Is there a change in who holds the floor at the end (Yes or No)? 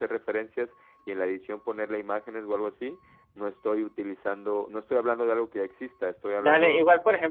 Yes